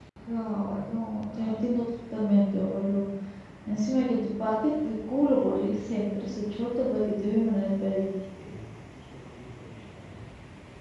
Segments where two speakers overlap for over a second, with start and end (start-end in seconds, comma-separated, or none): none